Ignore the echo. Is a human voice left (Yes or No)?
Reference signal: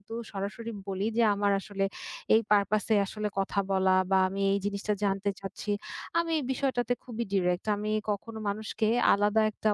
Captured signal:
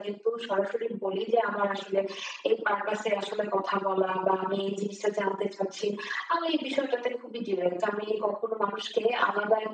No